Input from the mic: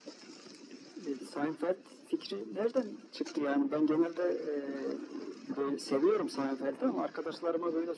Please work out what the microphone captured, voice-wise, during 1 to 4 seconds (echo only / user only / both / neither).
echo only